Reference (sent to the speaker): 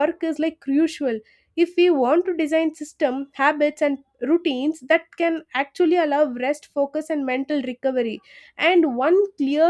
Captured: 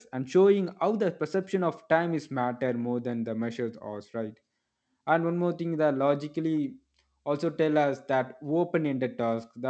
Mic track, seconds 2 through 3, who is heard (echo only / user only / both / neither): user only